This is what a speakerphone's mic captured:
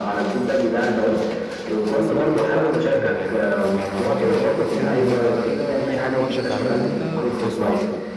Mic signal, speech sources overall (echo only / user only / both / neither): both